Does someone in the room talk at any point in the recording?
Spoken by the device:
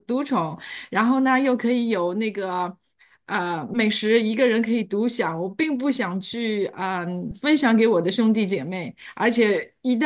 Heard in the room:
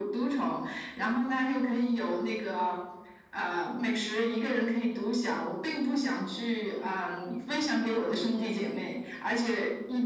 No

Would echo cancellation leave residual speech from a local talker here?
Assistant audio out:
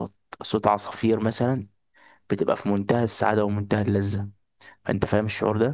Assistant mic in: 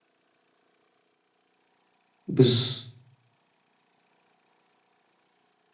Yes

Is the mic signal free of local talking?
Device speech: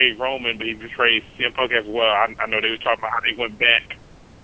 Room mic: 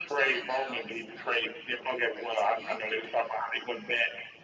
No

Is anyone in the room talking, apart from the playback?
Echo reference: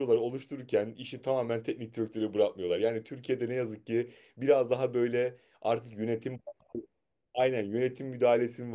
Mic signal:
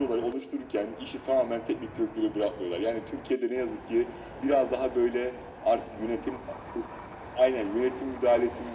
No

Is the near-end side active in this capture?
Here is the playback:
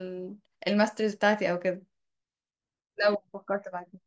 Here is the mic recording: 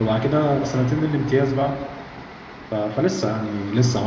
Yes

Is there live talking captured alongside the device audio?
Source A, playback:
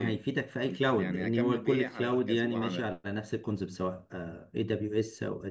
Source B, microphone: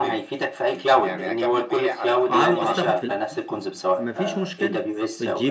Yes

